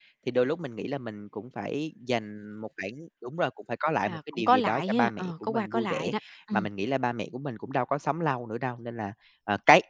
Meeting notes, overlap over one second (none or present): present